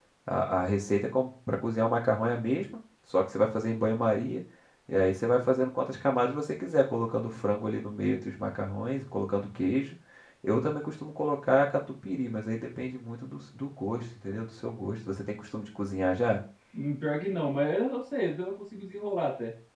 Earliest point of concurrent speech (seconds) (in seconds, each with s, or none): none